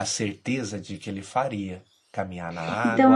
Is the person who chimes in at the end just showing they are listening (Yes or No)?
No